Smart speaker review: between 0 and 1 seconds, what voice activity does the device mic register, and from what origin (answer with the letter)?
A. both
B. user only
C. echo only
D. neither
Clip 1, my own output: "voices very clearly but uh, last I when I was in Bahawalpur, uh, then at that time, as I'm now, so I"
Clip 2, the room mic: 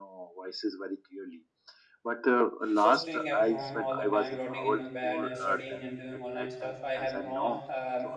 C